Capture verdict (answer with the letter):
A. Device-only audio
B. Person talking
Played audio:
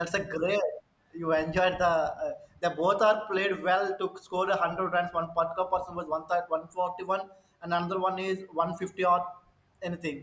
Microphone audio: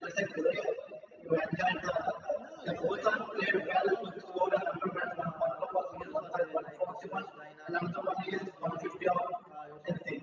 B